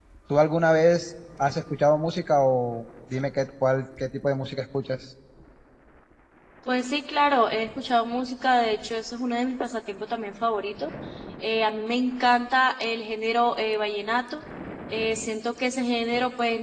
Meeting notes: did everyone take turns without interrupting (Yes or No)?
Yes